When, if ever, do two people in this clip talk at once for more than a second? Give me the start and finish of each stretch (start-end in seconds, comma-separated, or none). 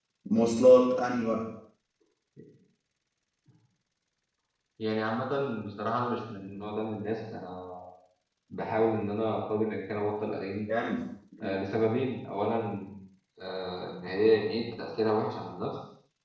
none